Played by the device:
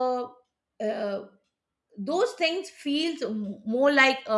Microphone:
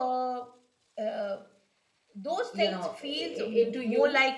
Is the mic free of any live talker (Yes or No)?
No